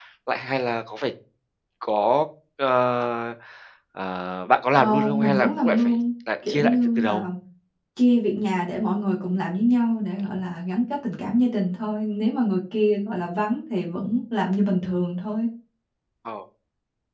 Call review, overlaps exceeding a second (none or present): present